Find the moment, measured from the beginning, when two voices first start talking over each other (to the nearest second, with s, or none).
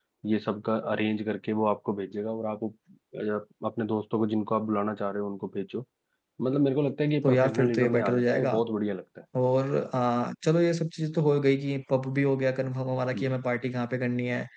7 s